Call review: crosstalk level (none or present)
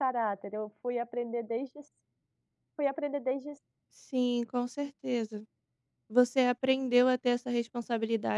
none